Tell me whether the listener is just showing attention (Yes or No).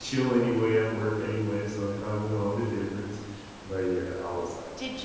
No